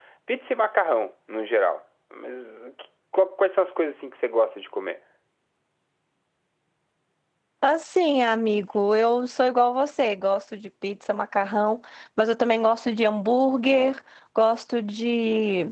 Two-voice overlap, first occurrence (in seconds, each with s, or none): none